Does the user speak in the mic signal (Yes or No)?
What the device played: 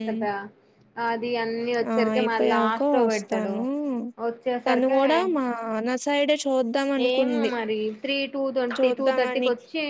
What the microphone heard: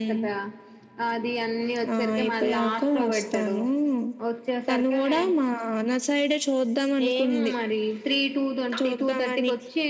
No